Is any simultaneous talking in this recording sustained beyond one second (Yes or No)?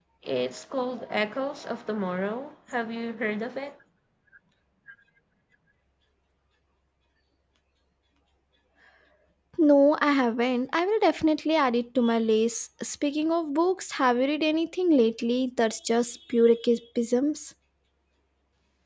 No